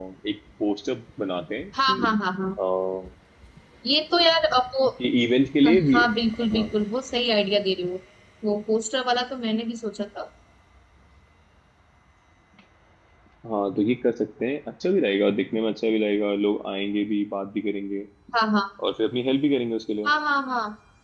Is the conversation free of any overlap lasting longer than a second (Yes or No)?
Yes